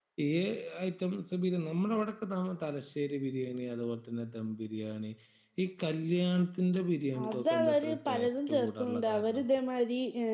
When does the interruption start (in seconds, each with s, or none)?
7.1 s